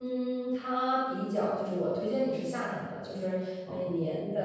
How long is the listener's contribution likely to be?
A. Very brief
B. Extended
A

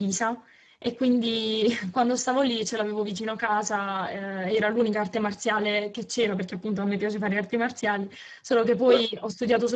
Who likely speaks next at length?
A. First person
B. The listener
A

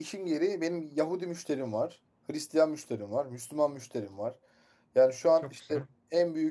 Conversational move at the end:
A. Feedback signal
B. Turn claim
A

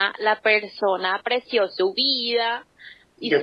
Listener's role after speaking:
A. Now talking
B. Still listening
B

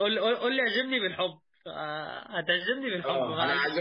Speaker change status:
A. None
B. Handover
B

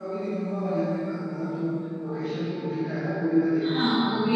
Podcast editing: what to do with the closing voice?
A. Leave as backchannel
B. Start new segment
B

